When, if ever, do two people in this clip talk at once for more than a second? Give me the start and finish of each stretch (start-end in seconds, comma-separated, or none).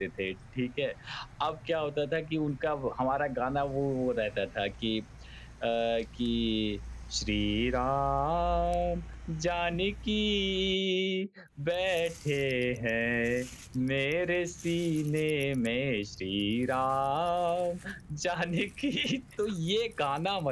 none